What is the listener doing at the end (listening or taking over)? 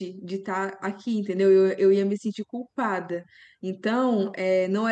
listening